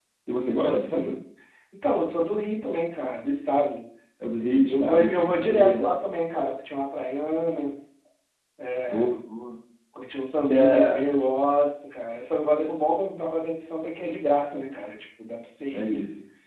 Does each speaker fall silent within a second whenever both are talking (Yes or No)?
No